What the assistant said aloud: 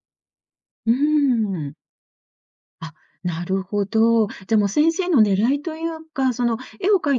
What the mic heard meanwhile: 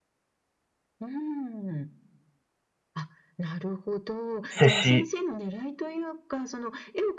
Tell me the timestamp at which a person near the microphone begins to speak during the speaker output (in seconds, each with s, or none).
4.5 s